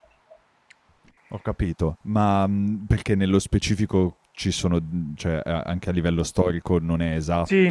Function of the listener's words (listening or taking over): taking over